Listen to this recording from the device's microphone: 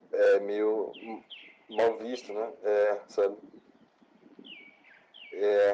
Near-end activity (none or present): none